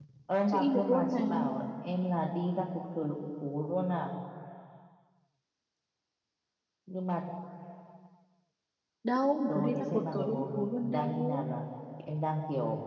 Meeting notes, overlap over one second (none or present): present